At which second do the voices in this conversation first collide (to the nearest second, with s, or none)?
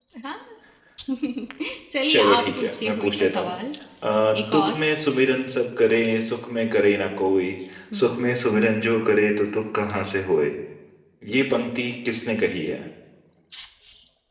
2 s